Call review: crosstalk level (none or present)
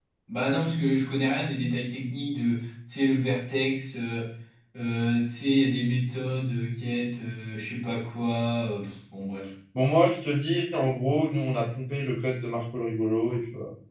none